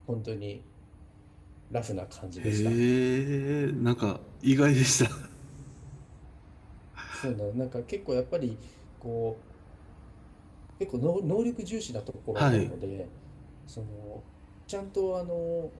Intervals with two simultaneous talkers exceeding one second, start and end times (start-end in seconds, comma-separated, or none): none